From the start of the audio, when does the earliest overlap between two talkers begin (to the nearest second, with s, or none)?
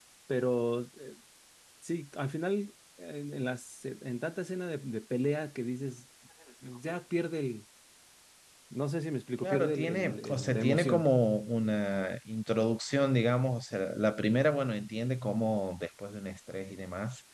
9 s